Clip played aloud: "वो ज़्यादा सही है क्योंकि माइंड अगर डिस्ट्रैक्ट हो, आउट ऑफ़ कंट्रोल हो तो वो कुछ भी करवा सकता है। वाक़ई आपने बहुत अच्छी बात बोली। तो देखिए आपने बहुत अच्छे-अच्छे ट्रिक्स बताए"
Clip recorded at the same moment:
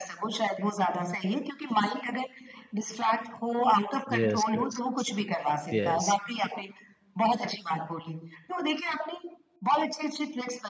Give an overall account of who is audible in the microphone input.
both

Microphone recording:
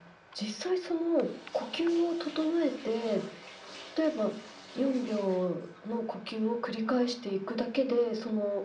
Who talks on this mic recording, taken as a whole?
echo only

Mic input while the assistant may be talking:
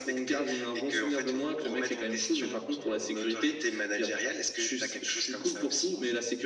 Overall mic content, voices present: echo only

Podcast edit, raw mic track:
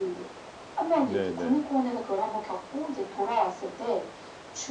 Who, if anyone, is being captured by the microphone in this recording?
both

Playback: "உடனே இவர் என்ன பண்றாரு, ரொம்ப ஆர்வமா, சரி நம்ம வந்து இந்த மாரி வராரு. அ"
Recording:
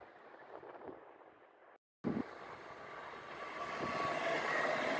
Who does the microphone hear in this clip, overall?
neither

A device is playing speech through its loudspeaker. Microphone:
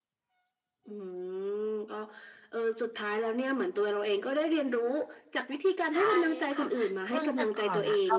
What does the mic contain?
both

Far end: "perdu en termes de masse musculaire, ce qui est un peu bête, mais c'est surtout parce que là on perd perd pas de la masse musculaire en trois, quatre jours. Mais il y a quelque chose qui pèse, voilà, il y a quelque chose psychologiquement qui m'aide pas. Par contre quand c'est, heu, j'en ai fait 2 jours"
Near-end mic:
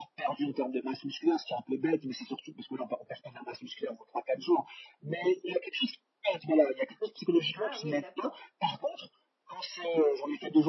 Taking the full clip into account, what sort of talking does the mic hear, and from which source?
both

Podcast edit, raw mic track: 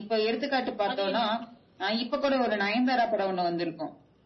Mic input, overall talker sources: both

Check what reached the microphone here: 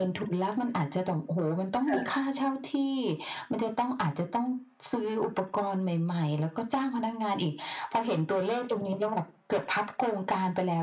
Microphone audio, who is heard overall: both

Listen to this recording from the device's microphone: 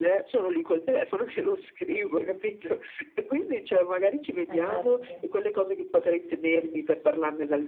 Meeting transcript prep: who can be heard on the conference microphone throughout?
both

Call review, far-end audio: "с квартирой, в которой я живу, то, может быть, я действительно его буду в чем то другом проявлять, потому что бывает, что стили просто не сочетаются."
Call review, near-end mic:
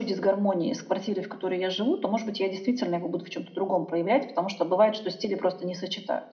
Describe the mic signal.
echo only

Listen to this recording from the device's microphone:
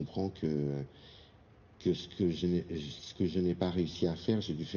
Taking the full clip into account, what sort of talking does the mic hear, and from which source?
echo only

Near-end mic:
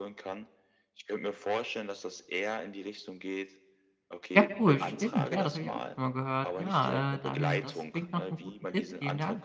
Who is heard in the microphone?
both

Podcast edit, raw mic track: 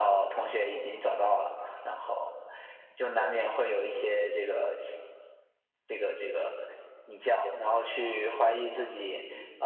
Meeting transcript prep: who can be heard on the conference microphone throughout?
echo only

